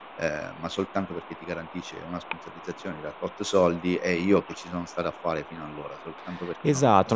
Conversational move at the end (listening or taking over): taking over